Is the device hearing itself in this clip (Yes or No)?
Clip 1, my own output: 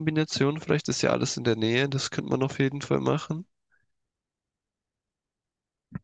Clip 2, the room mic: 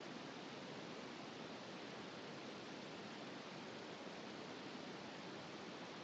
No